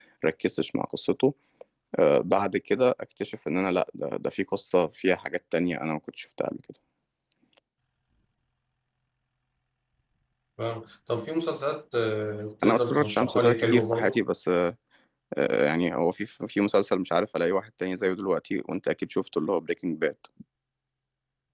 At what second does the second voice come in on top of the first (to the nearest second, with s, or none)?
13 s